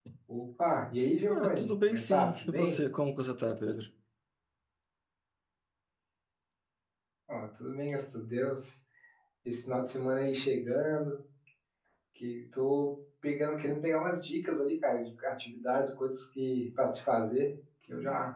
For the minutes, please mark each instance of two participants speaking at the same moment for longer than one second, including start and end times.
1.3-2.7

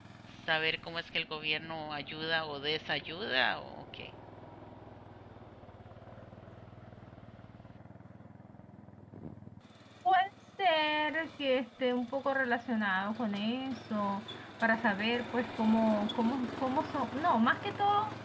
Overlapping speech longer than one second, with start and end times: none

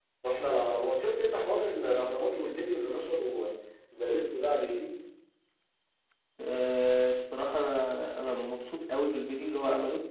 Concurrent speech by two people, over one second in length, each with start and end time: none

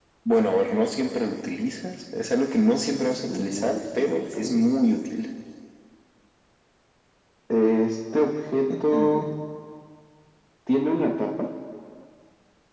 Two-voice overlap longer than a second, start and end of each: 3.3-4.7

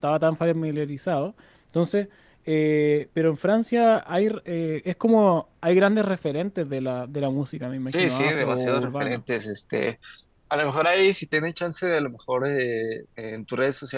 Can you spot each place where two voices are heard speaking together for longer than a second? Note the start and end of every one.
7.9-9.2

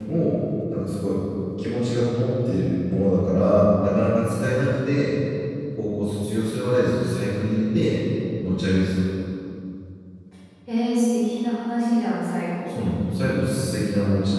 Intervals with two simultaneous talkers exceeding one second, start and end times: none

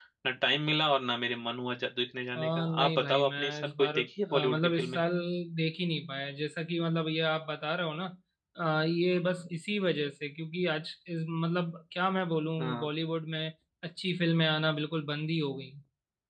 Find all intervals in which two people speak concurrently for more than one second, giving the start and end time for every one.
2.4-5.0

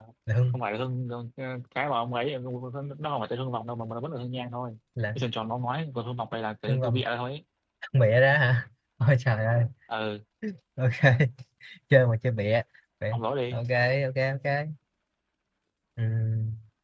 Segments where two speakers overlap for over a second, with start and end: none

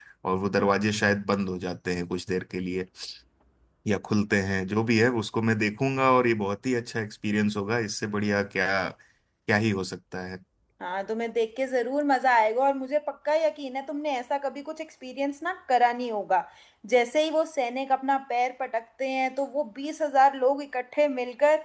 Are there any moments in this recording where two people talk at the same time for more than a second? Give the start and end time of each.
none

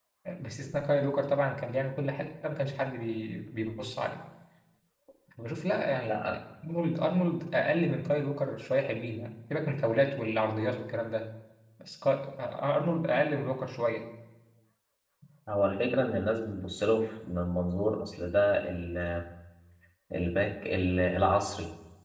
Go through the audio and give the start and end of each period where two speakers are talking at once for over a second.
none

